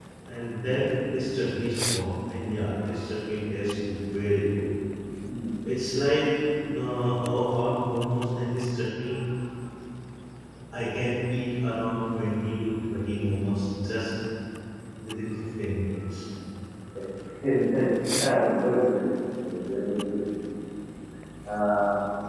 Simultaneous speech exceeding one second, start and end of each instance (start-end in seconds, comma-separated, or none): none